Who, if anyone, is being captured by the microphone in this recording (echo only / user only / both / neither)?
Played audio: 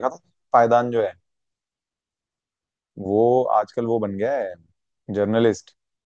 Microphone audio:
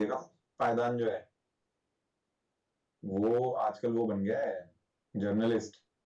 echo only